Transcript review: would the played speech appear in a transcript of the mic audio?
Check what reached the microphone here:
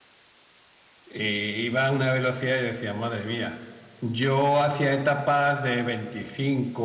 No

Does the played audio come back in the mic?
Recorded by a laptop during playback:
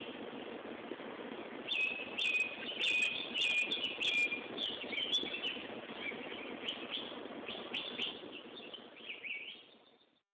No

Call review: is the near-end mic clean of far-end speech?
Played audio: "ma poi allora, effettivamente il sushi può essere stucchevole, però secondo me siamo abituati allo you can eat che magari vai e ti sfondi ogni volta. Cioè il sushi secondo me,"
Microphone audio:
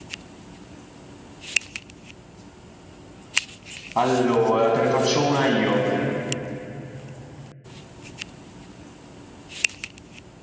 Yes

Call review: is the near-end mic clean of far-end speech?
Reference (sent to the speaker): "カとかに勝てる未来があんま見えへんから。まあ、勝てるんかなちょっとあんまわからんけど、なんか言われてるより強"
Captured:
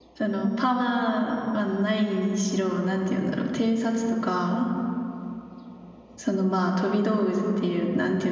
Yes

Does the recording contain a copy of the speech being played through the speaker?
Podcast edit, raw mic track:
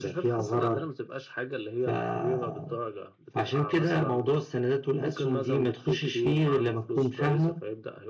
Yes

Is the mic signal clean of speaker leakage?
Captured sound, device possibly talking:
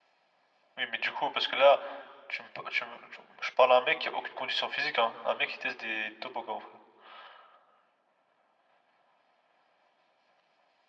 No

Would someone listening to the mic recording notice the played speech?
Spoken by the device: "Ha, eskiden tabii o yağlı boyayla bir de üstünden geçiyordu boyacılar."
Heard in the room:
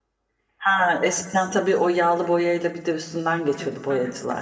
Yes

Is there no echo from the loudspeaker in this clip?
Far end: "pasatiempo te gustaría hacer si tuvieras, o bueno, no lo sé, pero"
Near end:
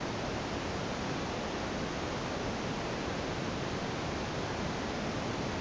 Yes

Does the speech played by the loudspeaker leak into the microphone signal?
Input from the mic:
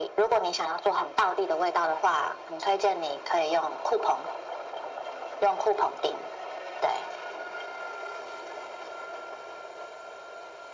Yes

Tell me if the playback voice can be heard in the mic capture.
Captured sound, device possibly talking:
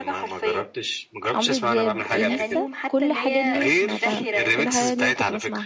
Yes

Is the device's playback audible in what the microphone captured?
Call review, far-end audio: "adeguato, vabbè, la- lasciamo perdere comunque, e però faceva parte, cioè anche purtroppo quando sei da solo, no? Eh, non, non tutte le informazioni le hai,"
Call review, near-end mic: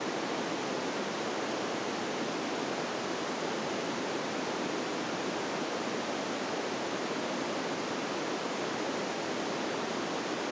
No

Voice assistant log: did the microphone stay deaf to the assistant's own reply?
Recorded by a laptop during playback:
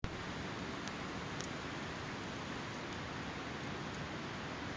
Yes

